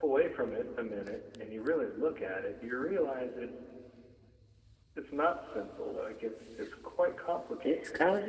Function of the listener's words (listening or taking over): taking over